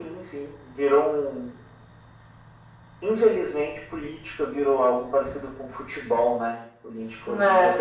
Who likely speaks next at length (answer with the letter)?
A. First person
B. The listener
A